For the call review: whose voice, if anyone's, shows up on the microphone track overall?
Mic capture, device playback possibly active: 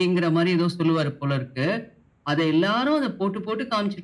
echo only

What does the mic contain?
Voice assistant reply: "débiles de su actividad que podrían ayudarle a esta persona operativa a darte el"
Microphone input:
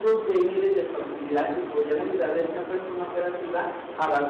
echo only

